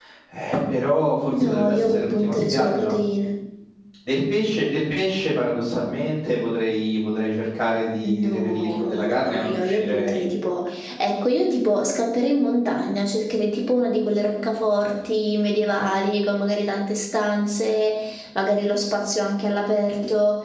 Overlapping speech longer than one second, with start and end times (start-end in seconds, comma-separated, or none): 1.4-2.9, 8.0-10.2